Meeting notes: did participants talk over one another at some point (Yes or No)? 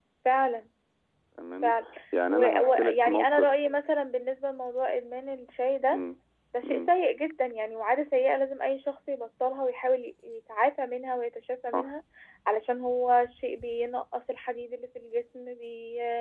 Yes